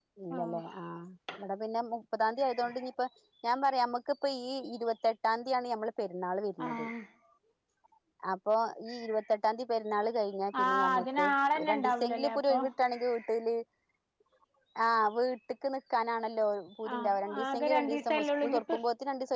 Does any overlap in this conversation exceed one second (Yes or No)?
Yes